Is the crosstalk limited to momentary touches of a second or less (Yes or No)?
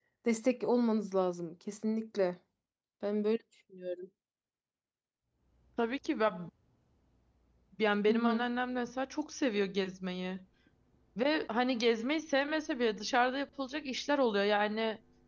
Yes